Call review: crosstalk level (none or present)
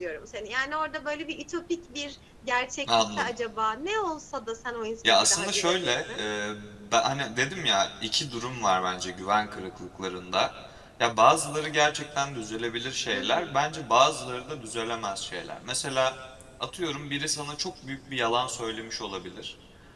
present